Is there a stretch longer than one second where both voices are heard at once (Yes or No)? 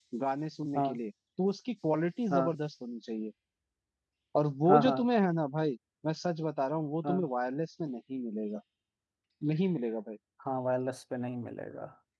No